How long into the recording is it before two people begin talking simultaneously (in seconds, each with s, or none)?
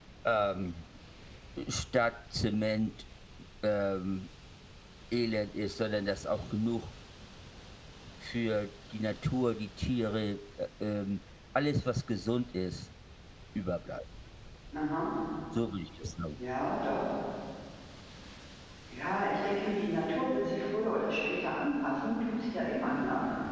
none